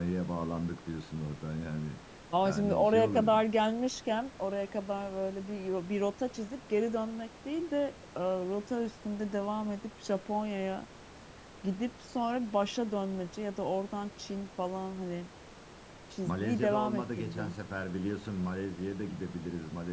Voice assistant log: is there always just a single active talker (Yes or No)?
No